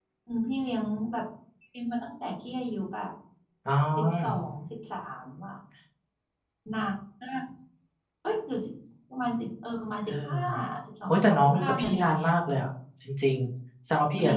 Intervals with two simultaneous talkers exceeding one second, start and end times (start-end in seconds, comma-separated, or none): 11.1-12.3